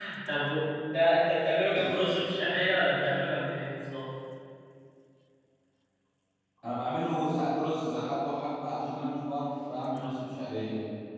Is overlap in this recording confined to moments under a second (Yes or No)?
Yes